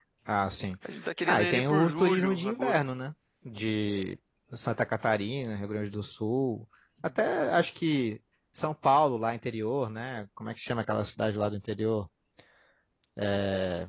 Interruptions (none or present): present